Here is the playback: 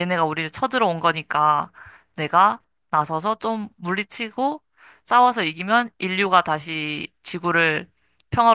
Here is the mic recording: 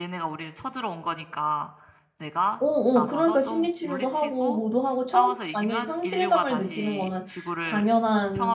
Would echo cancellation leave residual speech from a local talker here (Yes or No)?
Yes